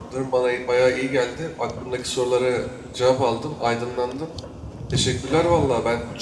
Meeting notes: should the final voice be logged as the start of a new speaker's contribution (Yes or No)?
No